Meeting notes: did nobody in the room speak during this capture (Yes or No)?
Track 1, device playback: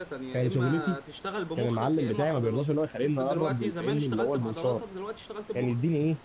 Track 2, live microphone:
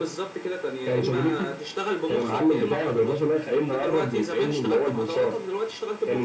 Yes